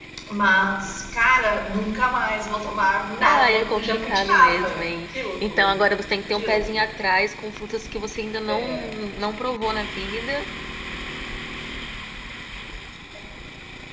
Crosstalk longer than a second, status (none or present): present